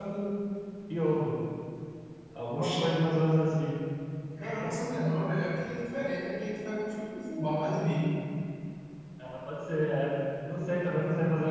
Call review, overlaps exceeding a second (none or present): none